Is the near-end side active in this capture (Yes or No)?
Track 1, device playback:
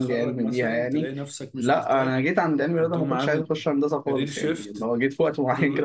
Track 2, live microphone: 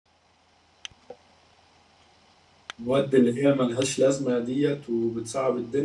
Yes